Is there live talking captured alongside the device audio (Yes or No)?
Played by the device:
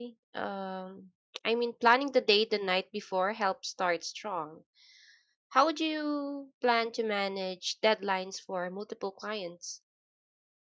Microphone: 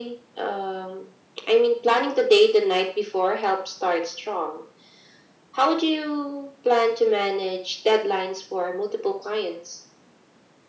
No